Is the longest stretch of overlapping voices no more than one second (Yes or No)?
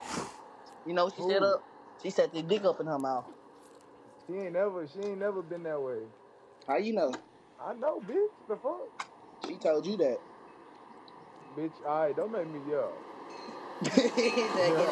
Yes